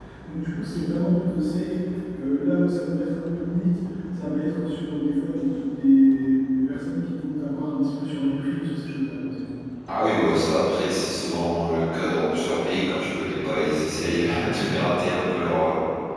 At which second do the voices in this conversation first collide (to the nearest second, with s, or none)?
none